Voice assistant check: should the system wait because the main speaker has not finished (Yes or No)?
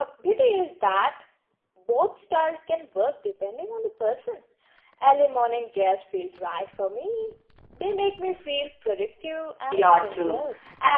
No